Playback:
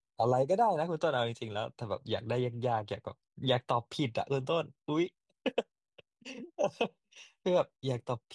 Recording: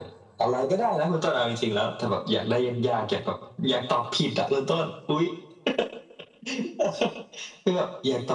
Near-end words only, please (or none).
none